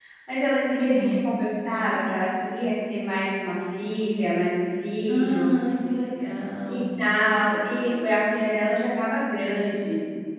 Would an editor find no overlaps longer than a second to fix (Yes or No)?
Yes